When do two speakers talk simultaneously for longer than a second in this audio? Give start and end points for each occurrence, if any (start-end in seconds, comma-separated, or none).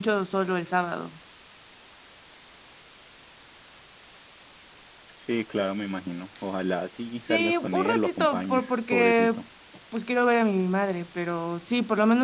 7.2-9.4